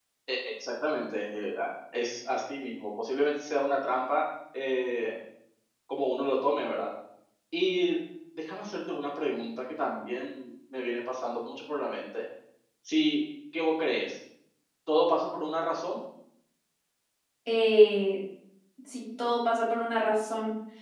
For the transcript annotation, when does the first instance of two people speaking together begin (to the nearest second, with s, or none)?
none